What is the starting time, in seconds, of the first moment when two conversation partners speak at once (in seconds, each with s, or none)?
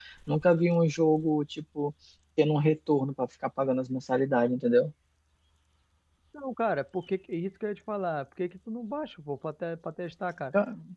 none